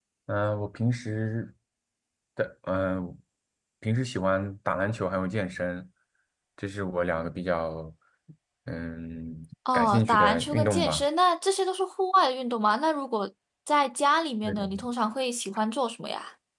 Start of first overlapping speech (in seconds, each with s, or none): 9.7 s